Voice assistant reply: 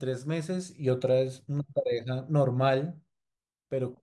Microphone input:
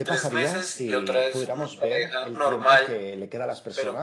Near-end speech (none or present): present